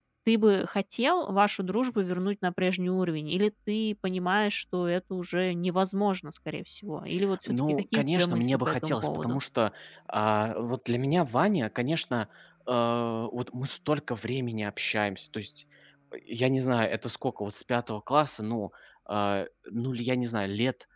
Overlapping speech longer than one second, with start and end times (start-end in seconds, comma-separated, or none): 7.5-9.4